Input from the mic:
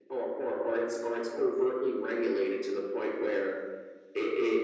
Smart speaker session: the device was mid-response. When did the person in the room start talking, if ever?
none

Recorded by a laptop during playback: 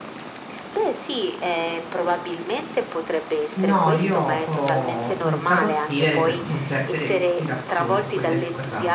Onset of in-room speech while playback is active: 3.6 s

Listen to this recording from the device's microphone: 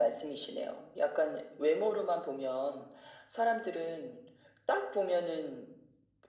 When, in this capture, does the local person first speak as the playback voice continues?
none

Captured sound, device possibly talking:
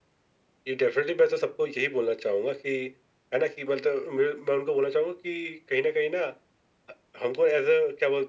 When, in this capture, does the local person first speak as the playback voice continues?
none

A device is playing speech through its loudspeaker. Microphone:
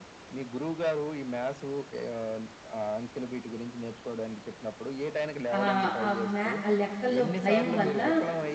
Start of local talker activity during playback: 5.6 s

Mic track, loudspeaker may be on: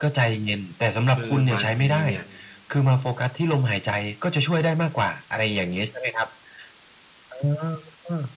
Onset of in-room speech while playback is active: 1.1 s

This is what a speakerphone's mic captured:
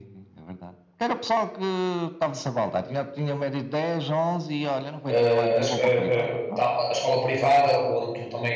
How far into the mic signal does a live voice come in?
5.1 s

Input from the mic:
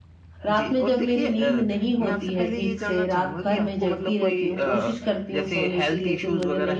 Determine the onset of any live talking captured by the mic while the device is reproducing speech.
0.4 s

